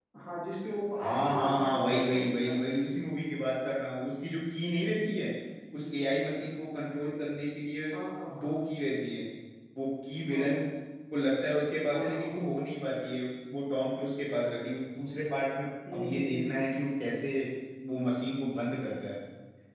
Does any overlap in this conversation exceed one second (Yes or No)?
Yes